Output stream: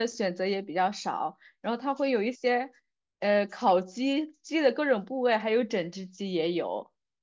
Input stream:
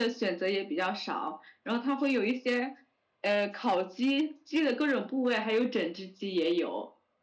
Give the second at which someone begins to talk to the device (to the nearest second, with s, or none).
none